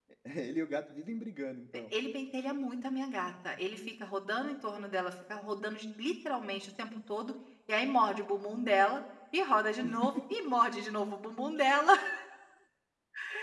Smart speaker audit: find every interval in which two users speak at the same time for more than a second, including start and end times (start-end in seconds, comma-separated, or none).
none